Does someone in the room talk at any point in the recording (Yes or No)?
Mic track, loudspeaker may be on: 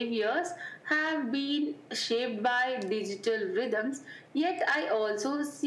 No